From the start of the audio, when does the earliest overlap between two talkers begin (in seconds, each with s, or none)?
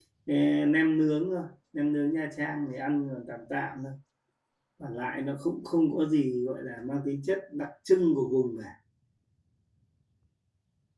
none